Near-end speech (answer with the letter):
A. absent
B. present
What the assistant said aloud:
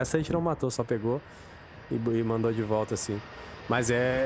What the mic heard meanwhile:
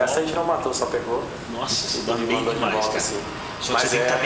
B